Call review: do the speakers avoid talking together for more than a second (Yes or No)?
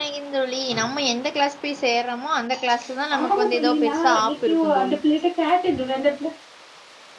No